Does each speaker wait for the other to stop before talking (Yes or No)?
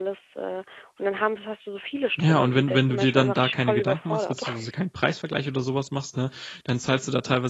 No